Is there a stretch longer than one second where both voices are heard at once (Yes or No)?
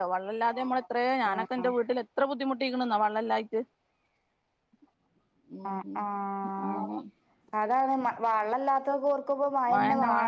No